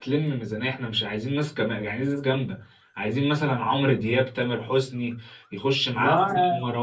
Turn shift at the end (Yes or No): No